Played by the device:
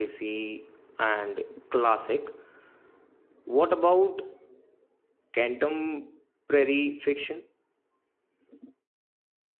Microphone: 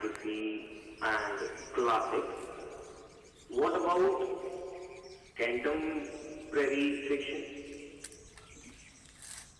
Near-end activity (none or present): none